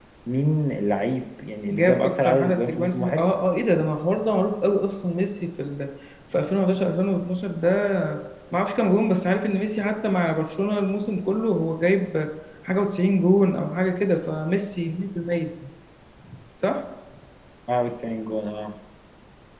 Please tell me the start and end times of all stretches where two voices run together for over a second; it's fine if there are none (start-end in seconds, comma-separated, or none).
1.7-3.2